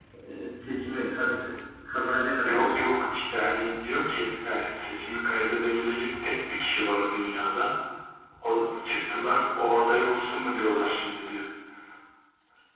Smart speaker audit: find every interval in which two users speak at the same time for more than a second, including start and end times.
none

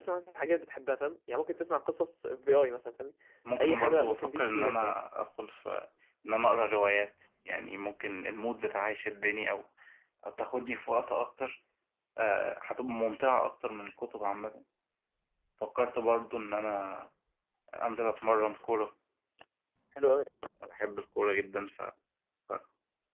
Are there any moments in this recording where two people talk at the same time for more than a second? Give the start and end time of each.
3.6-5.0

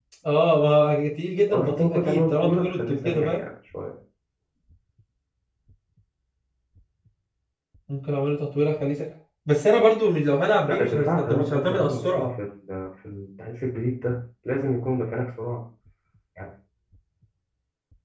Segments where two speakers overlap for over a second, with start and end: 1.5-3.4, 10.7-12.3

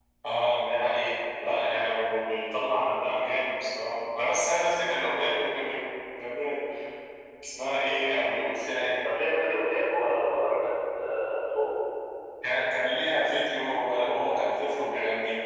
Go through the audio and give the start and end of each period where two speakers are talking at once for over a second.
none

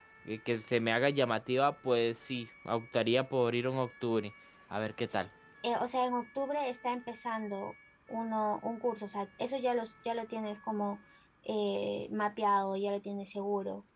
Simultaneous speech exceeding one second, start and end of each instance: none

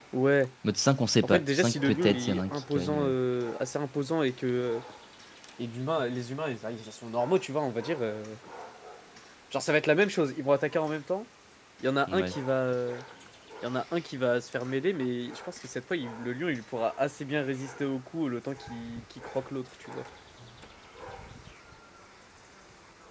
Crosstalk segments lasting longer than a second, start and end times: 1.2-3.1

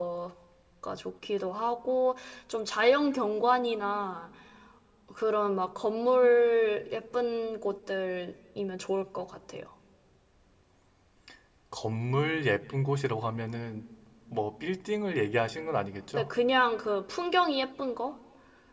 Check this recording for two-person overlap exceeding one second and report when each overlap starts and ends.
none

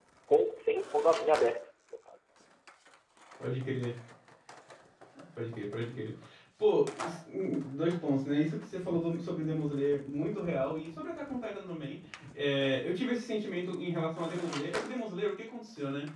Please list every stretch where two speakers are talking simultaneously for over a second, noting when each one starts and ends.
none

